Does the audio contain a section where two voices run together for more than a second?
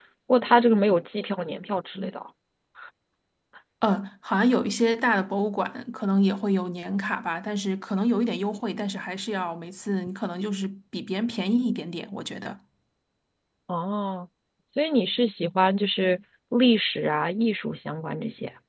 No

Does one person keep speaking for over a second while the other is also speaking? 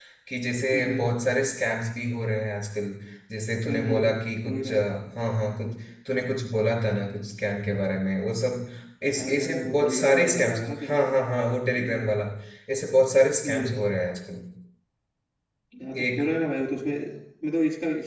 Yes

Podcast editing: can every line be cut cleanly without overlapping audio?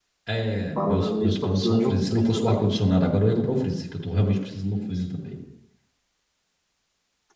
No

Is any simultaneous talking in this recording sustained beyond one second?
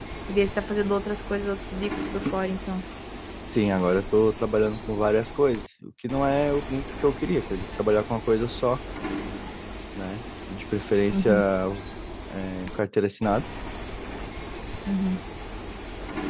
No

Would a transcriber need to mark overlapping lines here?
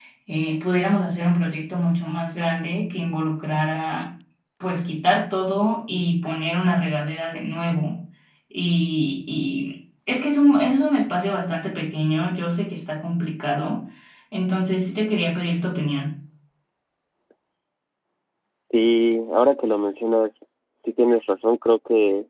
No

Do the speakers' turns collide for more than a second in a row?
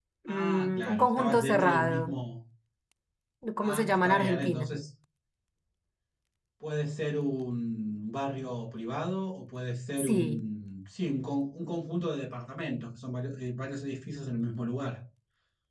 Yes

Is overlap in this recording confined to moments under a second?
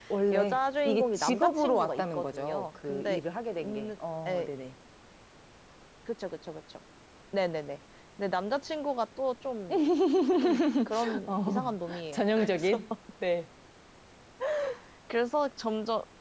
No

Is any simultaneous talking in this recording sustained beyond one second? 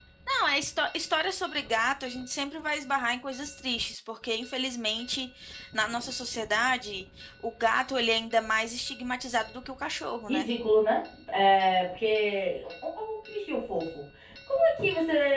No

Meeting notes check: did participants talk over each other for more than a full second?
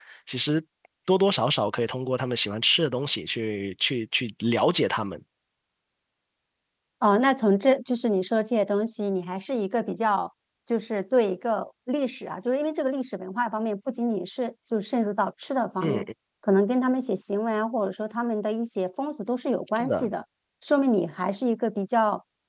No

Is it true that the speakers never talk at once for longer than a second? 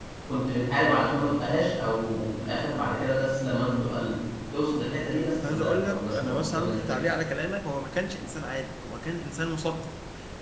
No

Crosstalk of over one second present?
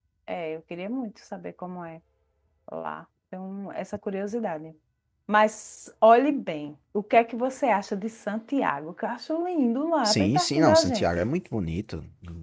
Yes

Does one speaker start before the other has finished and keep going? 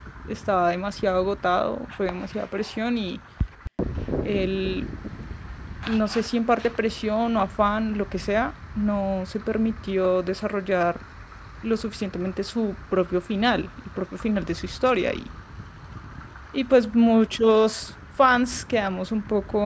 No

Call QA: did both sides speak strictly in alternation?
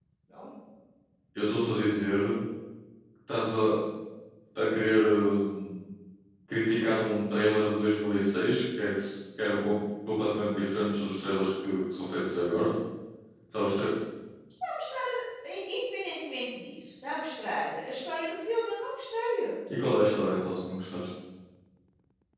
Yes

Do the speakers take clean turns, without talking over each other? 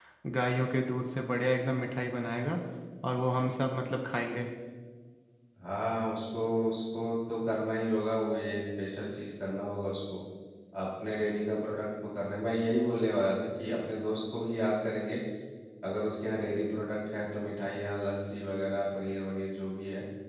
Yes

